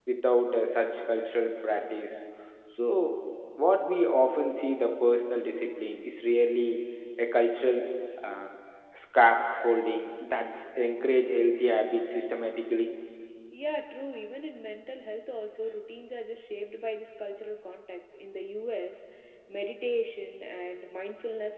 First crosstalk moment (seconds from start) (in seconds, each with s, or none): none